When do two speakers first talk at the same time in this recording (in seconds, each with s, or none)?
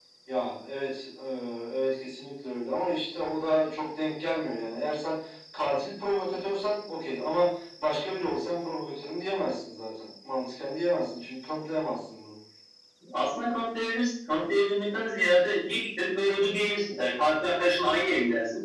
none